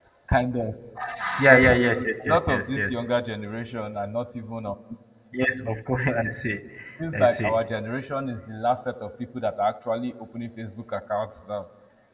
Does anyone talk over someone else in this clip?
Yes, from 1.5 s

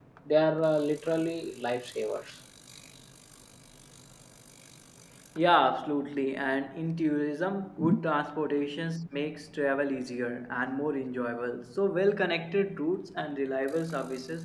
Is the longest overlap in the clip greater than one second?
No

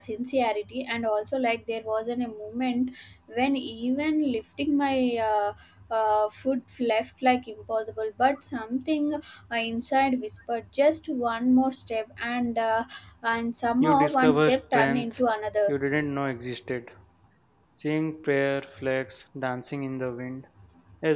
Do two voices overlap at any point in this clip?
Yes, from 13.8 s

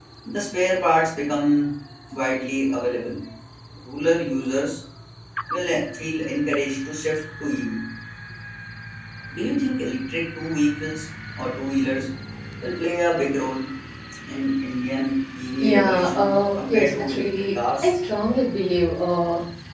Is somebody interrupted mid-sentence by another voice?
Yes, from 15.5 s

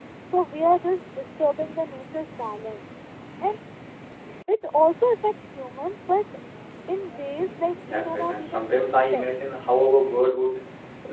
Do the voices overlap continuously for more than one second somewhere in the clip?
Yes, from 7.8 s

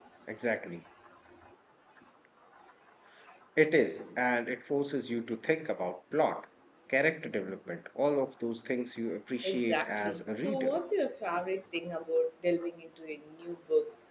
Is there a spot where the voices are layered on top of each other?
Yes, from 9.4 s

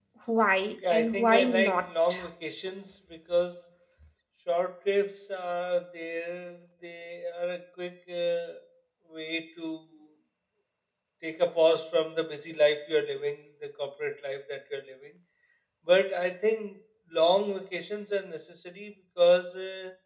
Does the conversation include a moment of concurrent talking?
Yes, from 0.9 s

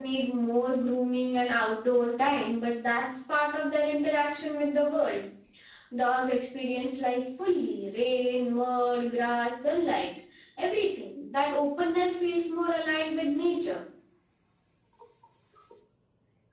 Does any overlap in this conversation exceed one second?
No

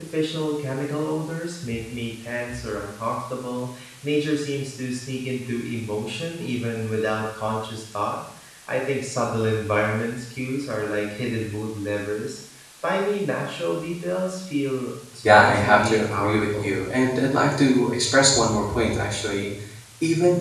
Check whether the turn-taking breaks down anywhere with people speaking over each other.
Yes, from 15.1 s

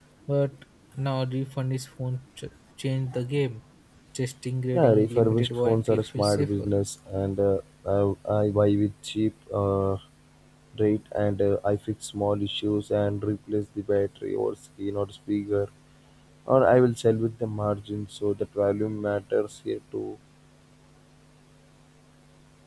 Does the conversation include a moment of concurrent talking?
Yes, from 4.7 s

